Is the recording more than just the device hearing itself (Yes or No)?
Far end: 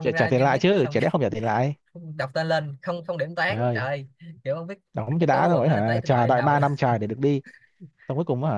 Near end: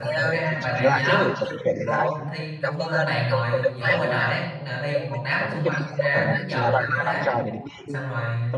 Yes